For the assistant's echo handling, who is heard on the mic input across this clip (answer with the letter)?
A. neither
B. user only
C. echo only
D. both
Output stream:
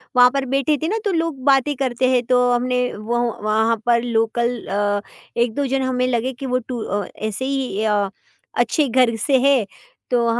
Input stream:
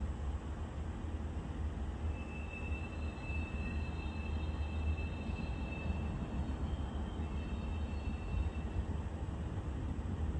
A